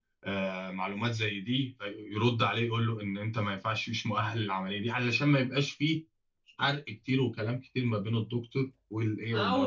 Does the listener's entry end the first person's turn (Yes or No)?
Yes